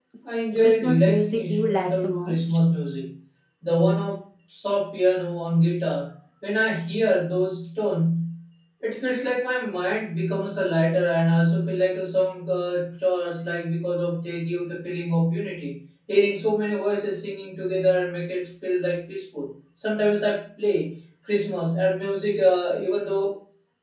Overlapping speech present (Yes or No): Yes